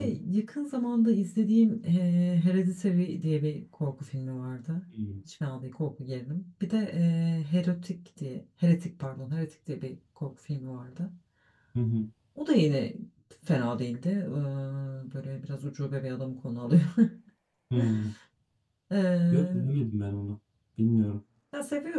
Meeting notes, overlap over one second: none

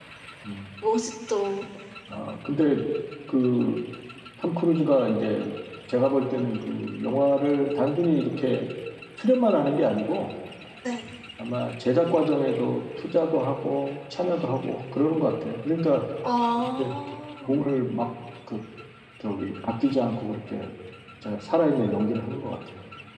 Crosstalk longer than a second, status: none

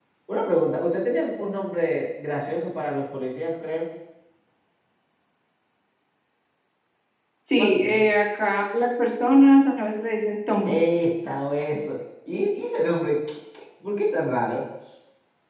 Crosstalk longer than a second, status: none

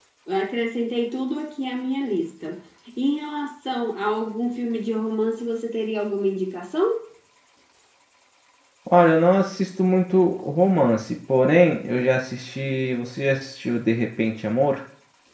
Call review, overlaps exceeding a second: none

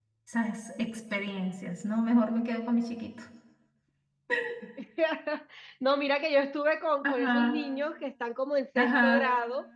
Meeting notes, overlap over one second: none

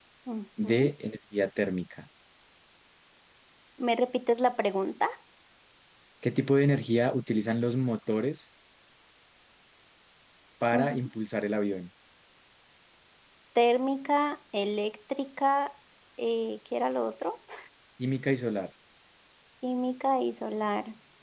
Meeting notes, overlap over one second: none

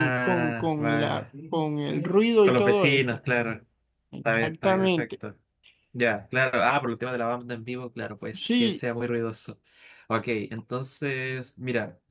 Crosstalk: present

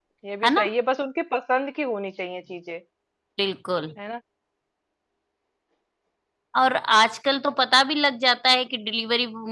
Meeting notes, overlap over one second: none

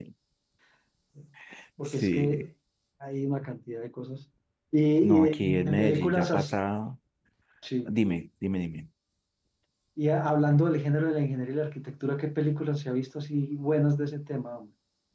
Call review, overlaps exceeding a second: present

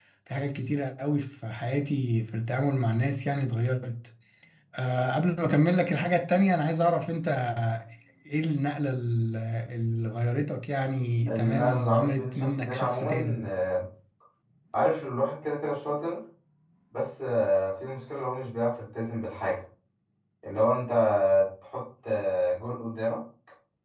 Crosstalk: present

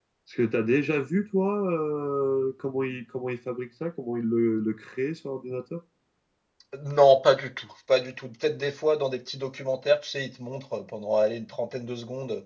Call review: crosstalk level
none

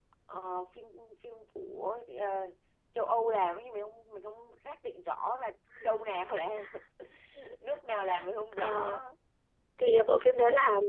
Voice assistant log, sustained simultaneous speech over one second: none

